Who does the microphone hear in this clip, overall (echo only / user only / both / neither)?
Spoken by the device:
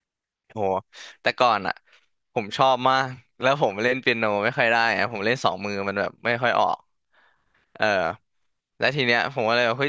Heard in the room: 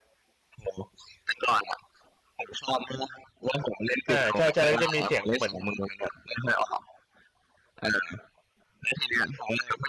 both